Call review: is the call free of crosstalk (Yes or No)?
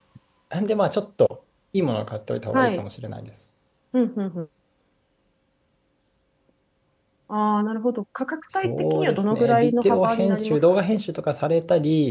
No